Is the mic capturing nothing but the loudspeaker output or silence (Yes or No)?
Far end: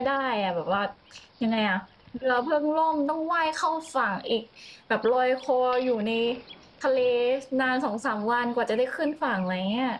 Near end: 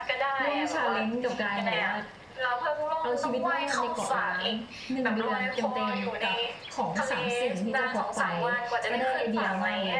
No